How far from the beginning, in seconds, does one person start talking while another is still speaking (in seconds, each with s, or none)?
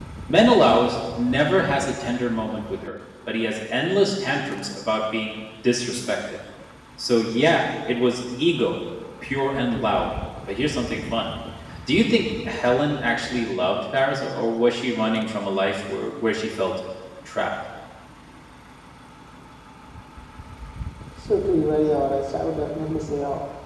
none